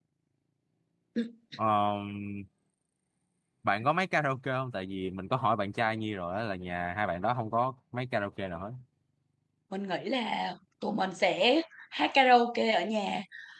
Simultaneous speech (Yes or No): No